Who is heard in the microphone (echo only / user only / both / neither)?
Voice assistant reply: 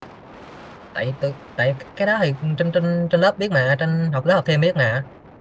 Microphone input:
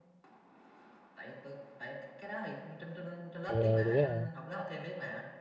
both